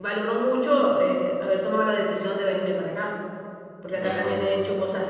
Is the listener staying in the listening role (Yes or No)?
Yes